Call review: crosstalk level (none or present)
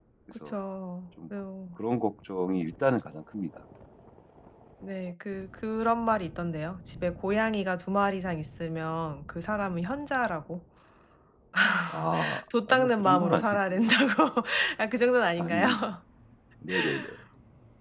present